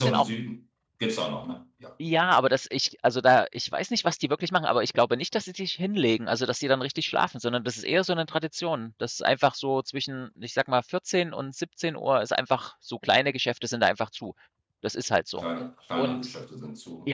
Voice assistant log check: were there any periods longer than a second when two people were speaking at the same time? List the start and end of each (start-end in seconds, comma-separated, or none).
none